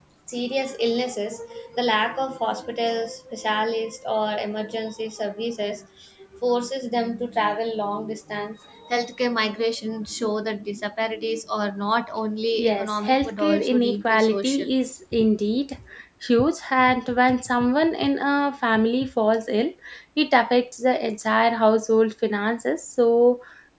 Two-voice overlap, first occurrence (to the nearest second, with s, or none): 13 s